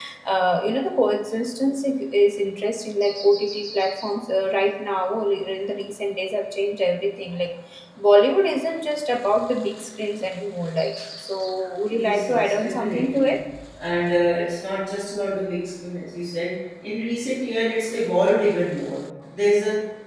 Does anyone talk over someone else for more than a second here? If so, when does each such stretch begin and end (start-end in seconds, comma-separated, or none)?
11.9-13.3